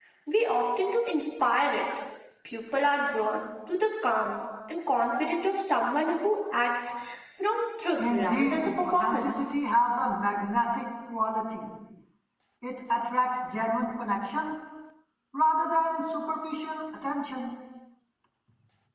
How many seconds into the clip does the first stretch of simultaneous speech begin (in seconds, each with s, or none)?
8.0 s